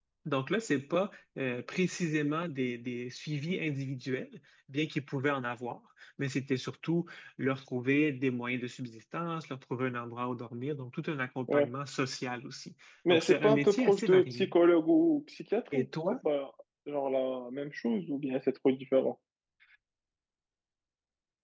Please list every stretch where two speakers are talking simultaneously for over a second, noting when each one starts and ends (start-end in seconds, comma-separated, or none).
13.1-14.5